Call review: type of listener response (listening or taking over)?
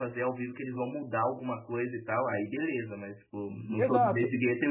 listening